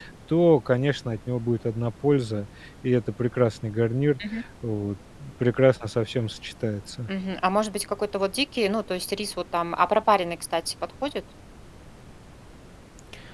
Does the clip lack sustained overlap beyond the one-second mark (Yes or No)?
Yes